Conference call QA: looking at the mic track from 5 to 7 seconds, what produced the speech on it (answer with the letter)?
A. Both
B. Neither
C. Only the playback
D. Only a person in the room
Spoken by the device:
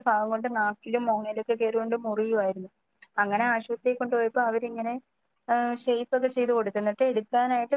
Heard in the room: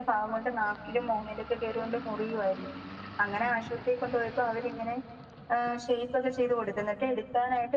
C